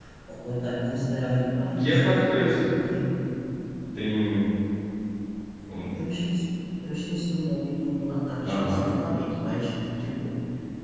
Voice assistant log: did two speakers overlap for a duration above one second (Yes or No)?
No